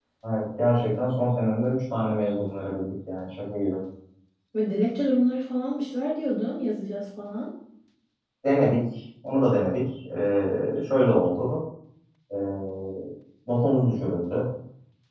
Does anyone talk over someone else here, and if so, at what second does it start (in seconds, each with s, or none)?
none